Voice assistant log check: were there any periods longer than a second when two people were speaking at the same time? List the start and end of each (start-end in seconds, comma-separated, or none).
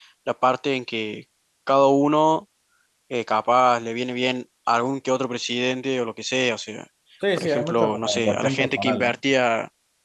7.4-9.2